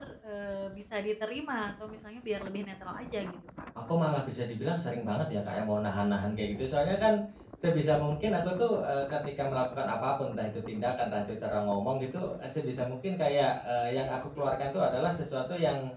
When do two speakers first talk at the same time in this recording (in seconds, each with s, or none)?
none